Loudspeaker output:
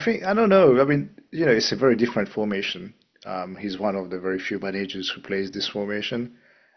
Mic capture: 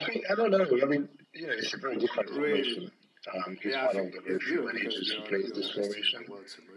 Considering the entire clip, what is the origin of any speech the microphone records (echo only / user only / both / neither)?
both